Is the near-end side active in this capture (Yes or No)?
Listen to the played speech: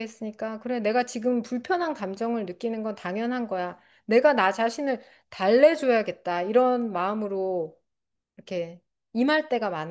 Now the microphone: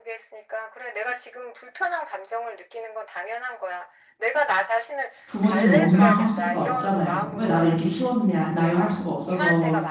Yes